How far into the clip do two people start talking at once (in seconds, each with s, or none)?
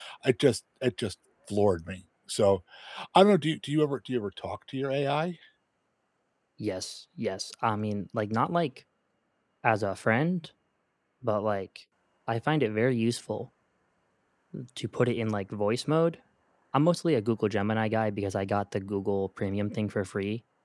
none